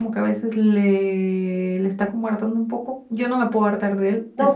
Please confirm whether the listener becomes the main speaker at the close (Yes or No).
Yes